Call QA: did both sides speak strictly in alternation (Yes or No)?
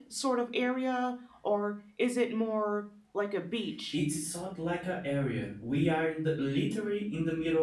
Yes